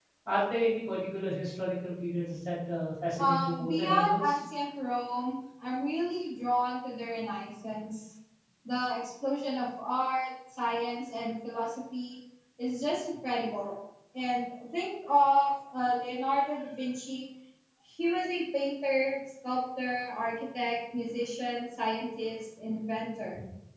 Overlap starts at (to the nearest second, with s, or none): 3 s